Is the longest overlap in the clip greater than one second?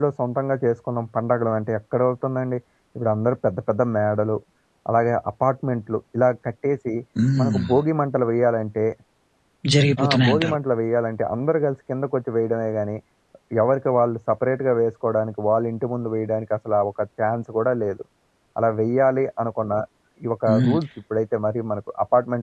No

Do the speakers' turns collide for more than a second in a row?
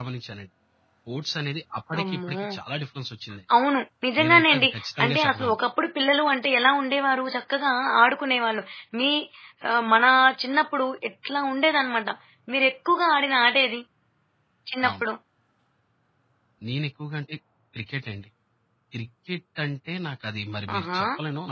Yes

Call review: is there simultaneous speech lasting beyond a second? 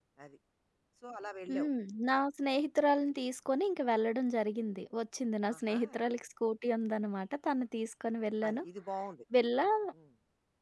No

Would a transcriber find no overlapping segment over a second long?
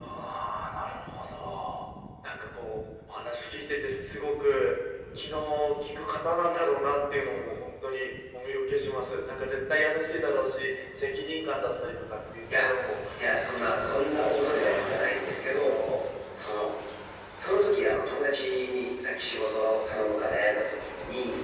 No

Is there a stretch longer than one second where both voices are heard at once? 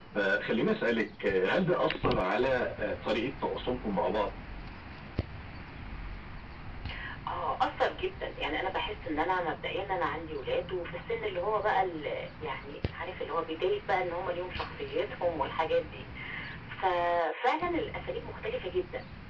No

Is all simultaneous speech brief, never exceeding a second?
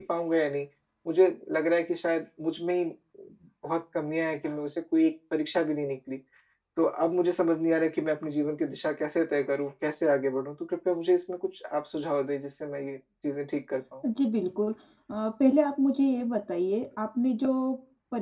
Yes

